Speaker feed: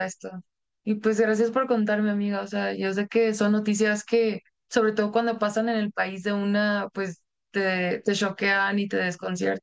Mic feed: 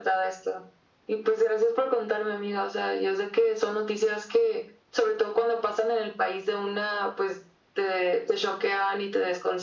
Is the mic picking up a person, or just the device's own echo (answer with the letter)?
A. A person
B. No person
B